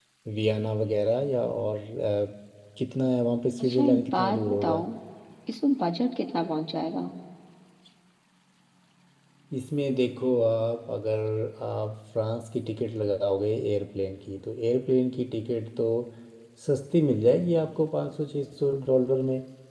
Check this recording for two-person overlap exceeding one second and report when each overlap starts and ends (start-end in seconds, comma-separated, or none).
3.6-4.8